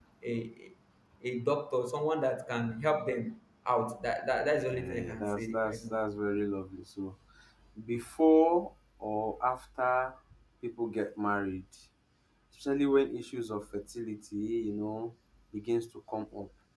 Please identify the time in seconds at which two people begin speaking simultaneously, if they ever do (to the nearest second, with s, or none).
5 s